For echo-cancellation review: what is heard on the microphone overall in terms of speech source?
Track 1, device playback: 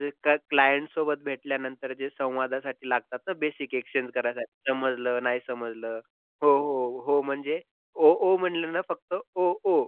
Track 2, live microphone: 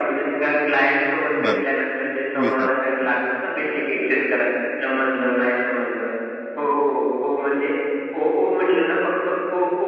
both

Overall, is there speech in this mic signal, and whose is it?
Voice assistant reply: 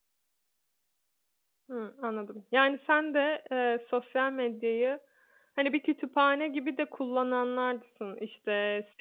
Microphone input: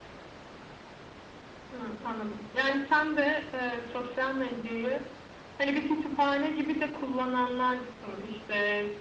echo only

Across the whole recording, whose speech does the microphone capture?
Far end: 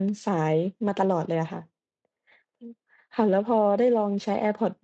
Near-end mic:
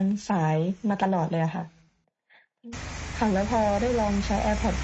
echo only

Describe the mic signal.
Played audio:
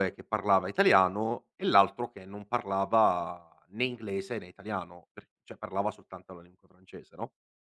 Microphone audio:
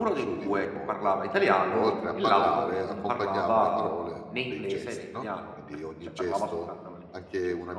both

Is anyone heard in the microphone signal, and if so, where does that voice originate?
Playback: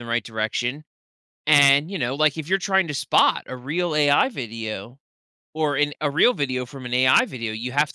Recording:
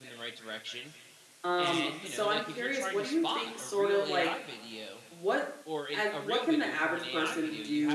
both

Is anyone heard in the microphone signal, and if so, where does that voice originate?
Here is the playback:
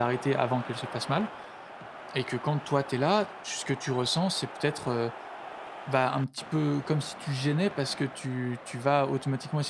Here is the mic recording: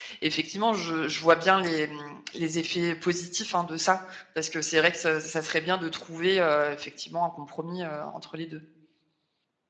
user only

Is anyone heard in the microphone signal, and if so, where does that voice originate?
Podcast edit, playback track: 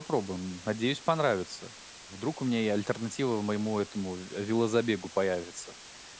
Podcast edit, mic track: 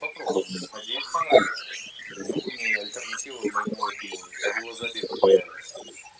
echo only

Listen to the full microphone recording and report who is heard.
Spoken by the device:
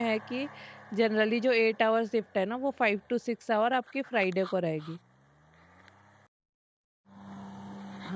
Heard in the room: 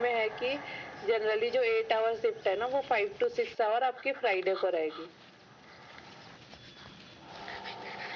echo only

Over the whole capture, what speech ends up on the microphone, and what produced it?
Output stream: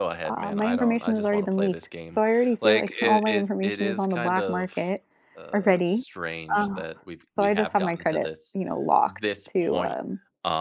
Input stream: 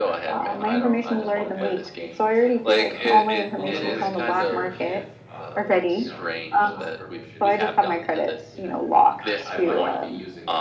both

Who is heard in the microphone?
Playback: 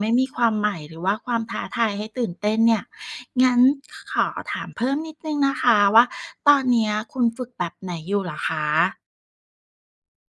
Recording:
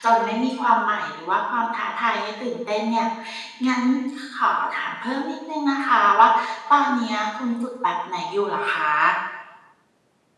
echo only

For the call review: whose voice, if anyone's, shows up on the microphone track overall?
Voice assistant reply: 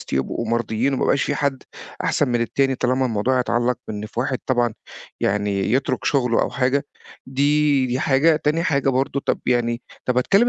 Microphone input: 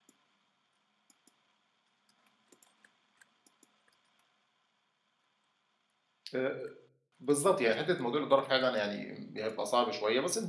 user only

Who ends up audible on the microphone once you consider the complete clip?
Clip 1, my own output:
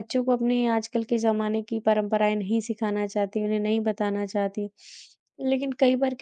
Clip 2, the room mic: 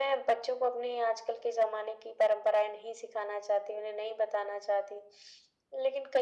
echo only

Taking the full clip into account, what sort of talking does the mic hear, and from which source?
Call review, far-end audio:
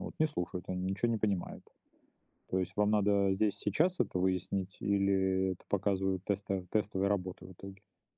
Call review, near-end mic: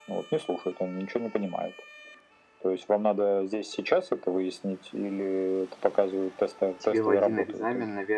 both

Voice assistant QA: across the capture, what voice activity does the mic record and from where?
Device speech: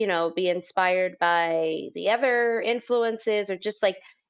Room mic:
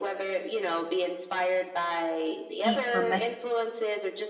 both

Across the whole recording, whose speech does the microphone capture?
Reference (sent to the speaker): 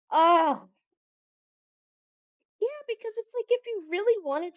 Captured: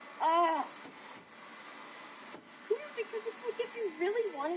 echo only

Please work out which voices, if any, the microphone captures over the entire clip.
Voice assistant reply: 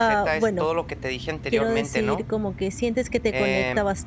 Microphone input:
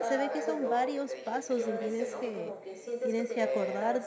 both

